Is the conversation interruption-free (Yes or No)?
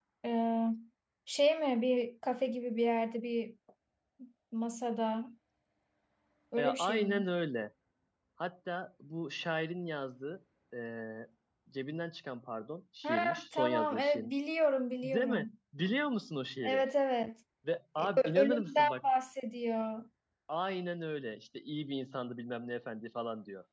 No